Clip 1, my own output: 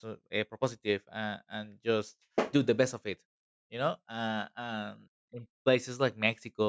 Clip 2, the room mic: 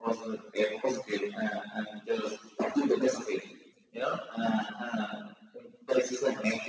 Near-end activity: none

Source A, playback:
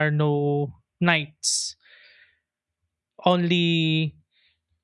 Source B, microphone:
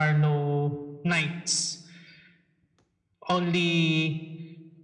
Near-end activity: none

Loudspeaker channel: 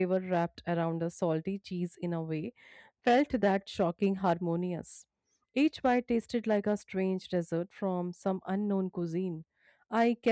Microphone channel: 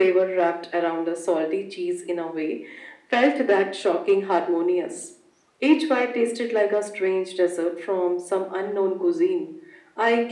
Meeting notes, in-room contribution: none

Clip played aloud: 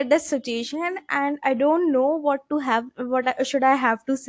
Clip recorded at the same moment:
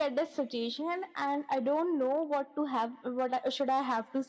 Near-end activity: none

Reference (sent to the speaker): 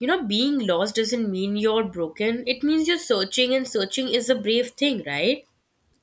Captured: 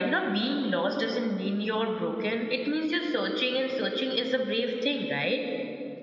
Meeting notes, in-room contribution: none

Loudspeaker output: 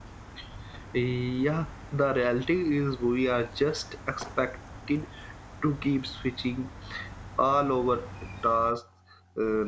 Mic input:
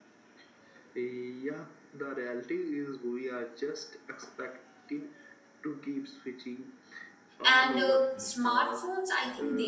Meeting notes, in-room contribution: present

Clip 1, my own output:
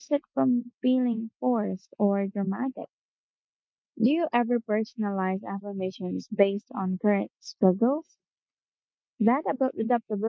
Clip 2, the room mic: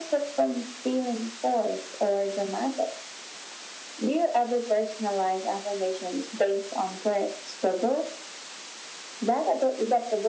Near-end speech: none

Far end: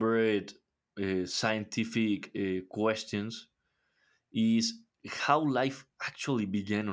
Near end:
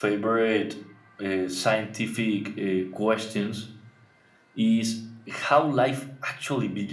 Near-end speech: none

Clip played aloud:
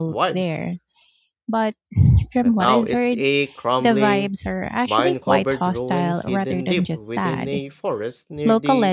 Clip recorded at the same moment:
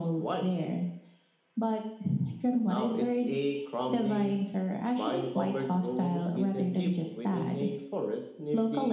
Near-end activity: none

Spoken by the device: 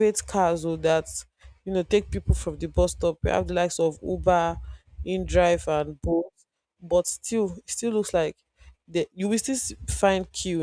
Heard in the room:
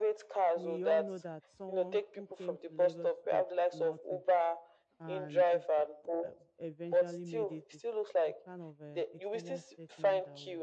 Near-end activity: present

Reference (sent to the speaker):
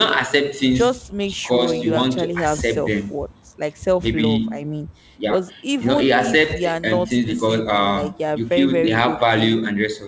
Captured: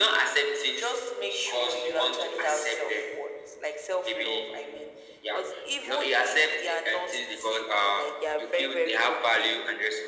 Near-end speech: none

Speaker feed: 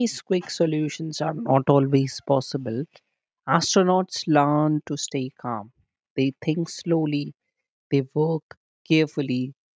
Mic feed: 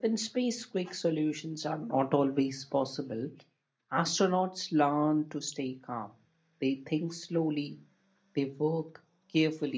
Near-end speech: none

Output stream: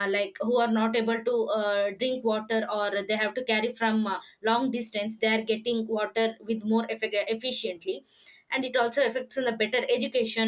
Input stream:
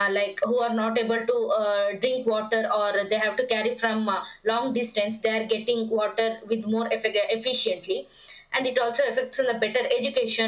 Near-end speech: none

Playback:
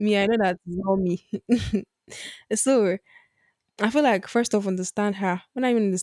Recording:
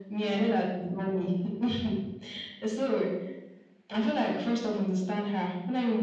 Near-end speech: none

